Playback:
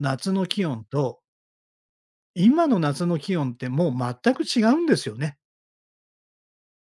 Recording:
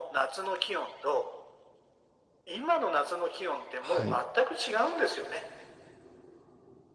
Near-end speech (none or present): present